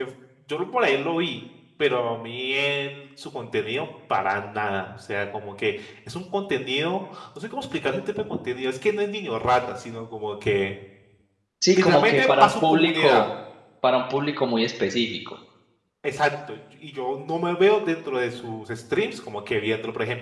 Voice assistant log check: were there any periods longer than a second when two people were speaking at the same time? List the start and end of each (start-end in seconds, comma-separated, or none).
11.7-13.2